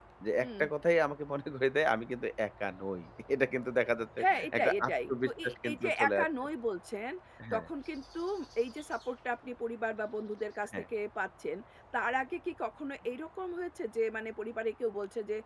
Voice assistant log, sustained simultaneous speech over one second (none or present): present